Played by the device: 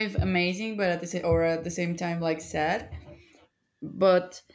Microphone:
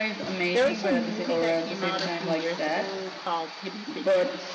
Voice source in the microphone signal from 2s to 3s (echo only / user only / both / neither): both